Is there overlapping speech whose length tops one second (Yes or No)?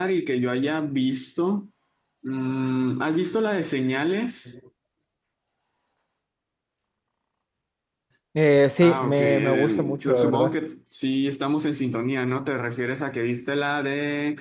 Yes